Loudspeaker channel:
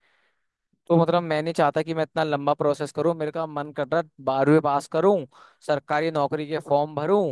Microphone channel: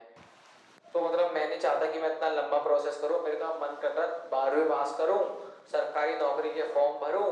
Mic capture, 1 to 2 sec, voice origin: echo only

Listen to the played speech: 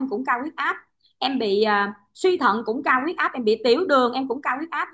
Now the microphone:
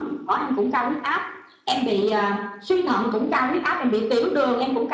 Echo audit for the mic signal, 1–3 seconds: echo only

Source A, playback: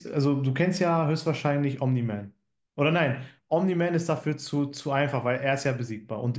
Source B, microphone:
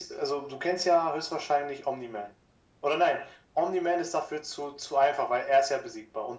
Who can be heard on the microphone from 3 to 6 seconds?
echo only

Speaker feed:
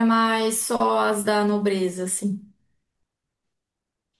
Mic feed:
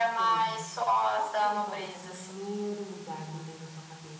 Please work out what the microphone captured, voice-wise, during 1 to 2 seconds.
both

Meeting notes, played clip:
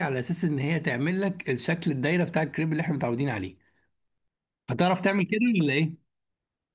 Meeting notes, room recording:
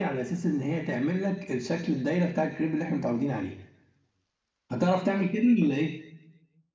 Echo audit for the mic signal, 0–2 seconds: echo only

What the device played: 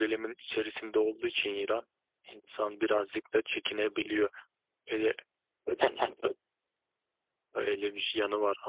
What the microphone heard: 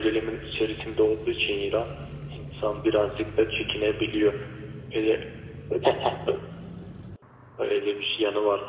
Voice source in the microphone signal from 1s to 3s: echo only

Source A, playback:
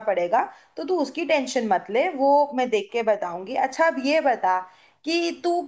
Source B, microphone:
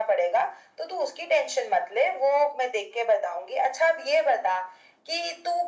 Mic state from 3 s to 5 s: echo only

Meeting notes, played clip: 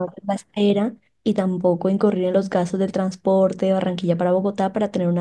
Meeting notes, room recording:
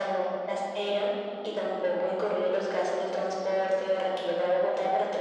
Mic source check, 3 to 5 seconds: echo only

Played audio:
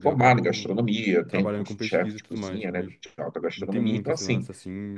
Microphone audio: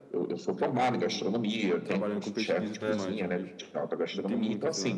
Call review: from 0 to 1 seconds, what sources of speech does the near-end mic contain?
echo only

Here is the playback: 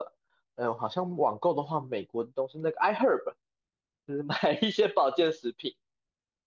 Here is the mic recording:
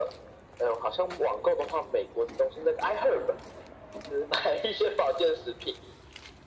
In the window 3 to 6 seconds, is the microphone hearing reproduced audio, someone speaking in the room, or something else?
echo only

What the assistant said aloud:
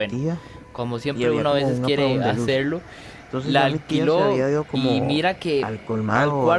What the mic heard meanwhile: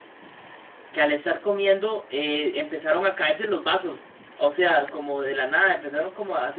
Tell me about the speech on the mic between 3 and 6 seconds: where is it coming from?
user only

